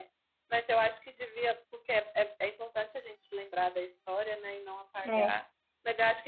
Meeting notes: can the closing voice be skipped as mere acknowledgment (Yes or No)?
Yes